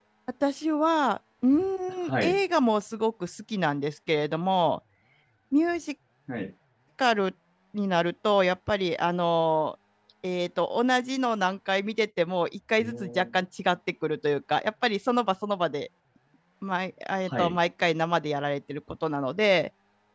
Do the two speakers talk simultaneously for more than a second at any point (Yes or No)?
No